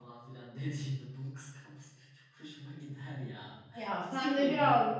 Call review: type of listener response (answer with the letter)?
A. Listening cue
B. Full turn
B